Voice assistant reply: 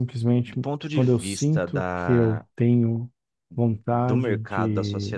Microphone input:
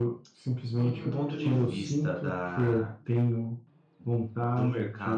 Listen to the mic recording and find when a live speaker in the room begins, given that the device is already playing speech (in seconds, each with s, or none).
0.6 s